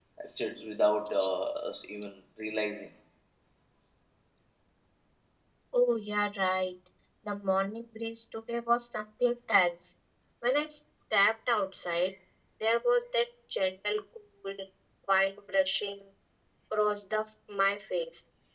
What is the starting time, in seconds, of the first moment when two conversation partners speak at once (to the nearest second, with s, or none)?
none